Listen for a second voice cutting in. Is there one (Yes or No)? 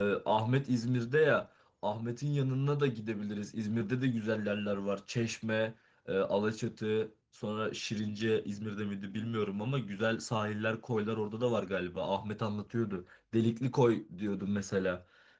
No